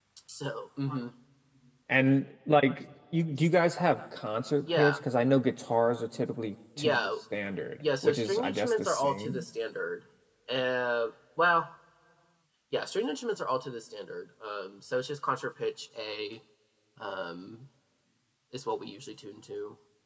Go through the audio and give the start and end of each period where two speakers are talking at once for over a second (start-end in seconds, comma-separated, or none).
8.0-9.4